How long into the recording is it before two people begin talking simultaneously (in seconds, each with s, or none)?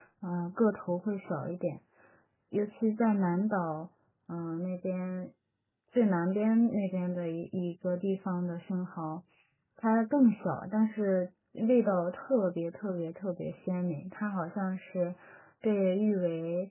none